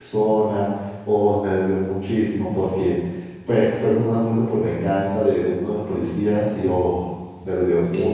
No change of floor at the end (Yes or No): No